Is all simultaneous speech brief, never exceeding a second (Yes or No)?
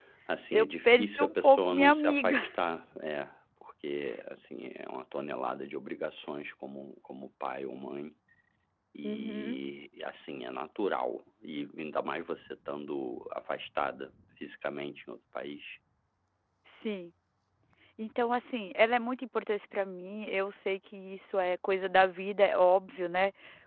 No